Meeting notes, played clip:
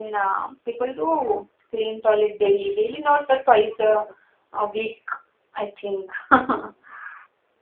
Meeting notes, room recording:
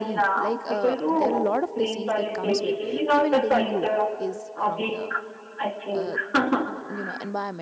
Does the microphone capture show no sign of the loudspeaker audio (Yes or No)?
No